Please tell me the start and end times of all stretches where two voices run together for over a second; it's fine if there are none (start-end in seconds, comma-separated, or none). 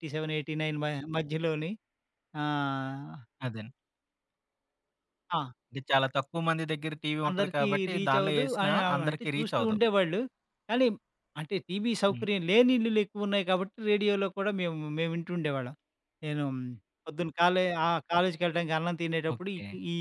7.3-9.8